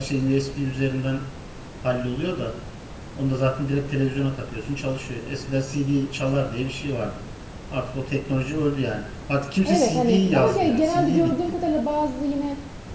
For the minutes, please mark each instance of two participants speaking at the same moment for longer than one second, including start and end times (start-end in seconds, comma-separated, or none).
9.6-11.6